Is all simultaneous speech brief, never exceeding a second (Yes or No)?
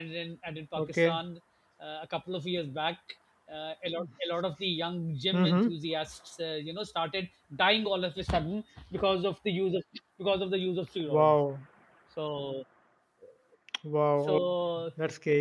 Yes